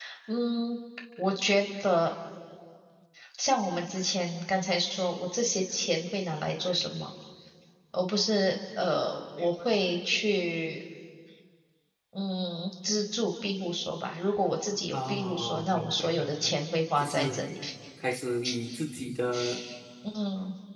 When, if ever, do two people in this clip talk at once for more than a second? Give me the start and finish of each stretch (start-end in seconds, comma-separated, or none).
14.9-16.5